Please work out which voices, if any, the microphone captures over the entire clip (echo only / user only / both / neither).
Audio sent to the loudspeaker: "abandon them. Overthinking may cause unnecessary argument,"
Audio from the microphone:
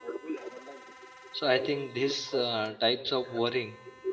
both